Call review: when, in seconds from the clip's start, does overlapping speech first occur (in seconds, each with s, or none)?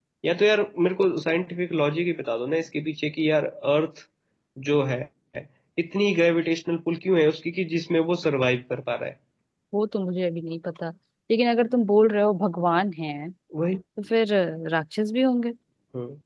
none